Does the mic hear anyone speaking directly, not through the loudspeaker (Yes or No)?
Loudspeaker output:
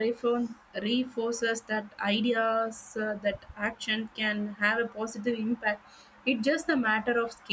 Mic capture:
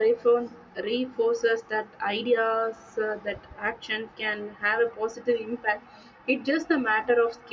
No